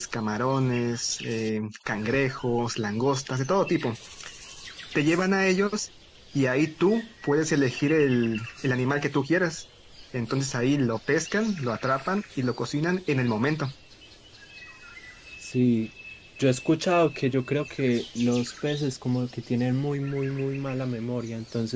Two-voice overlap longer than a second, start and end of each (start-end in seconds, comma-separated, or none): none